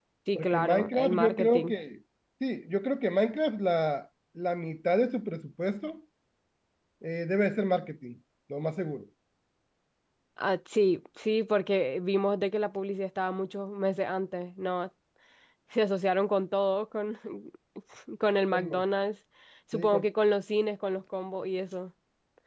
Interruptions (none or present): present